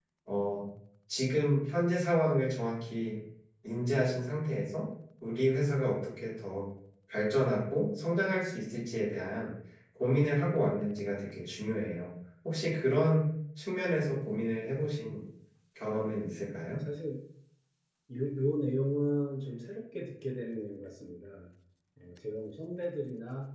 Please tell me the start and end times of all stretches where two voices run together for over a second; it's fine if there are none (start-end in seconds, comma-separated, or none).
none